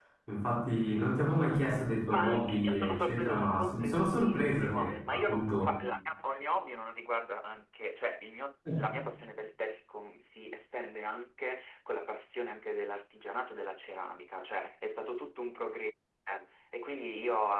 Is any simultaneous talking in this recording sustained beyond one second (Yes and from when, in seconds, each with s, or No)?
Yes, from 2.1 s